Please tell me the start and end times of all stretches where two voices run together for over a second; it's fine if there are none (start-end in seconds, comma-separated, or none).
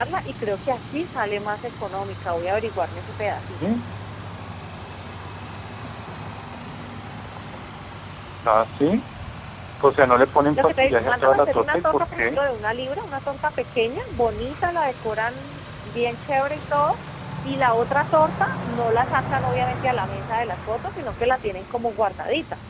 10.6-12.4